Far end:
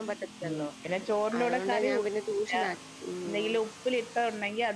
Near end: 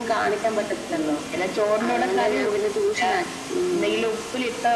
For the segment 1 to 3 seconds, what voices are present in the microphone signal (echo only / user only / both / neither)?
echo only